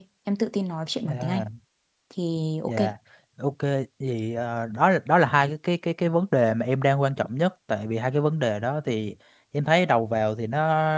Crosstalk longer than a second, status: none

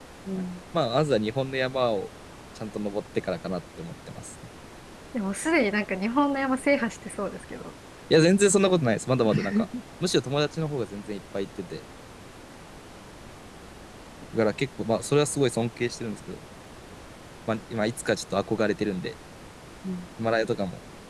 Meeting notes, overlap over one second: none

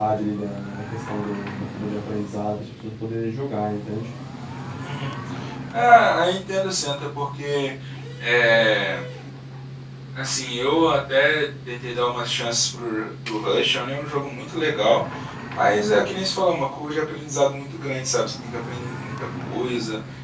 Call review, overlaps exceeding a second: none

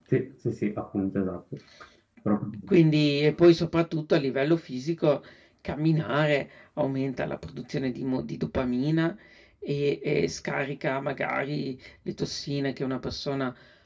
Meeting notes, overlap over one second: none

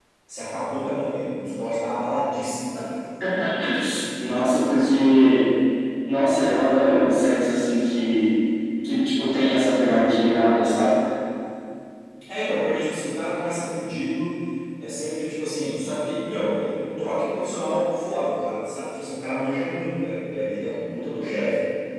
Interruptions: none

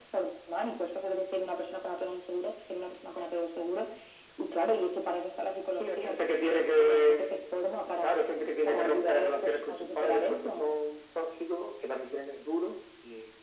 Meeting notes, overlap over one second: present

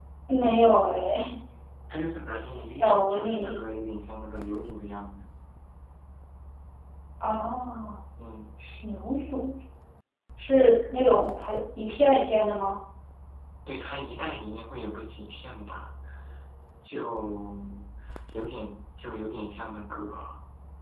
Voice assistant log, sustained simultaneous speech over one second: present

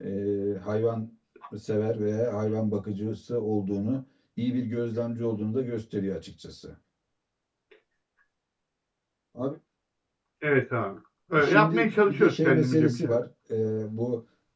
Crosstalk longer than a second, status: present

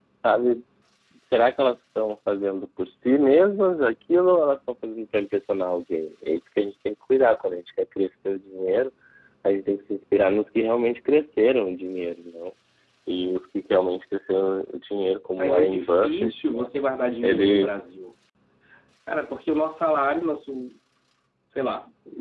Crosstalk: present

